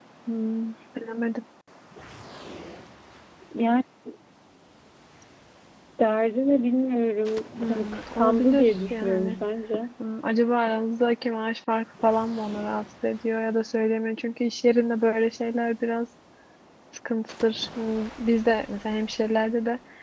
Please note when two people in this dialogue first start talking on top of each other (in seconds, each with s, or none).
7.6 s